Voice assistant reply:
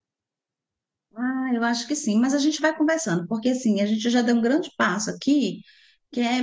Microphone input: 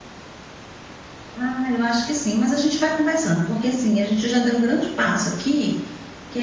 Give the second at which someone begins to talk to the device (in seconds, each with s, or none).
none